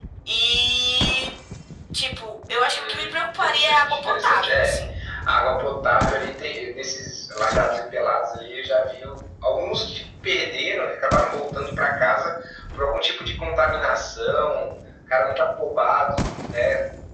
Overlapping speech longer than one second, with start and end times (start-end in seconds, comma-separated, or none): 2.7-4.9